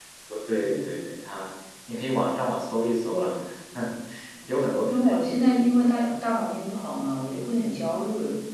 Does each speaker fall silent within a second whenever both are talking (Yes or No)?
No